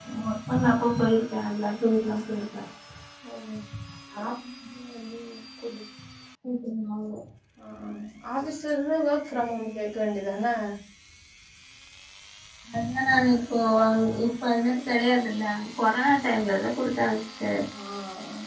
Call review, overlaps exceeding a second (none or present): none